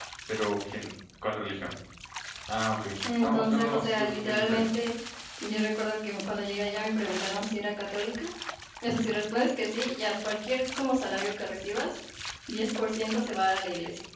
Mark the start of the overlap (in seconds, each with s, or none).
3.2 s